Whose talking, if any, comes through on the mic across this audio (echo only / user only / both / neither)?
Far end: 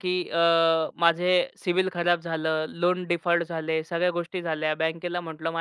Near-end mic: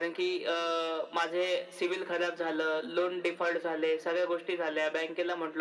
echo only